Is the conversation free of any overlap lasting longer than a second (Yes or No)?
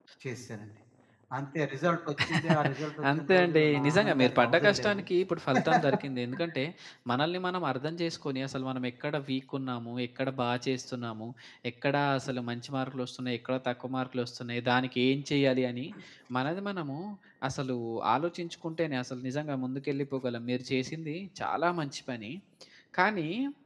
No